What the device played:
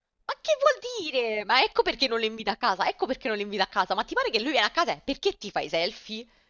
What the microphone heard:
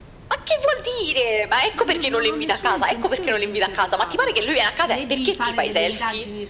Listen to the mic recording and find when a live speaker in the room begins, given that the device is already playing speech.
2 s

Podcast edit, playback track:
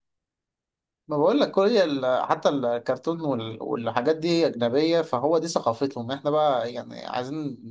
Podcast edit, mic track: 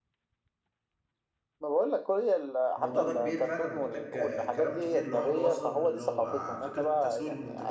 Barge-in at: 3 s

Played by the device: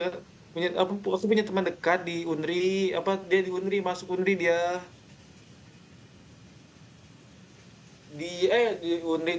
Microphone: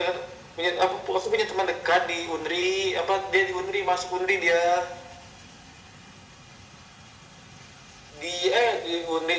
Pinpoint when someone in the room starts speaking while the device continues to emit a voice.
none

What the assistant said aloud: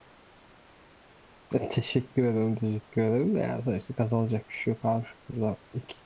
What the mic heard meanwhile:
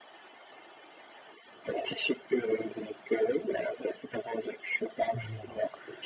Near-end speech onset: 5 s

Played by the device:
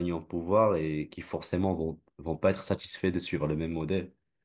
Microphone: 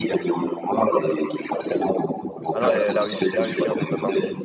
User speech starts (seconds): 3 s

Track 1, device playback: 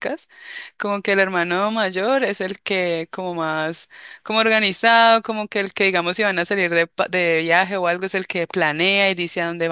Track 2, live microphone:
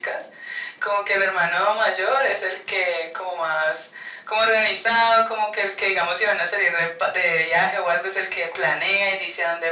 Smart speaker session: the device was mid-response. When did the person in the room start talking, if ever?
none

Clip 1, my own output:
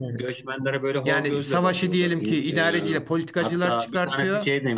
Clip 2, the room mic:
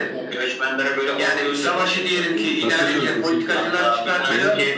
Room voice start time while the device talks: 3 s

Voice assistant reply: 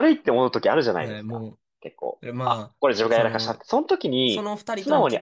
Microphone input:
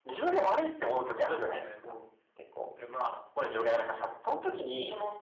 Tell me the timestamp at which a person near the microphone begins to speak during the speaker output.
none

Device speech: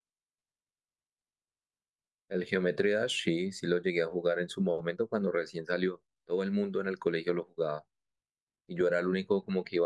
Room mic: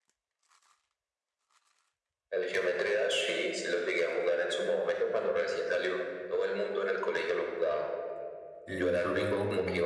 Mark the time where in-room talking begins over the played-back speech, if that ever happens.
9 s

